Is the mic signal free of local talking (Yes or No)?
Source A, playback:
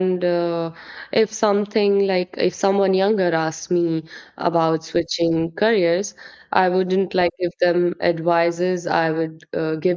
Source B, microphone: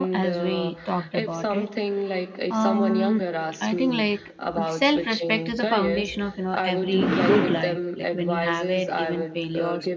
No